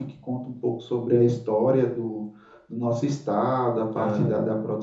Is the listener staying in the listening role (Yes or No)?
Yes